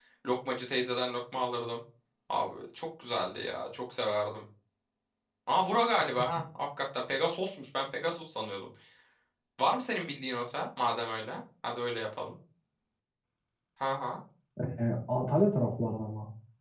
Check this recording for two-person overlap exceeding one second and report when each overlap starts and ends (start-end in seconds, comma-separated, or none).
none